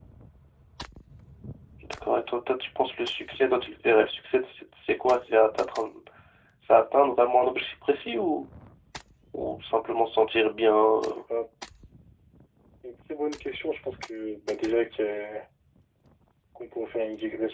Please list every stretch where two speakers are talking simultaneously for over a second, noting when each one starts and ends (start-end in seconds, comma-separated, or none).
none